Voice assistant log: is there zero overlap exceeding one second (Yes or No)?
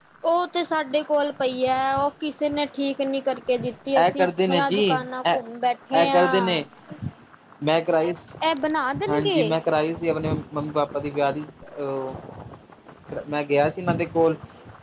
No